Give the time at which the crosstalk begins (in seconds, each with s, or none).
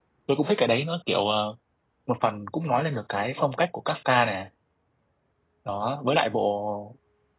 none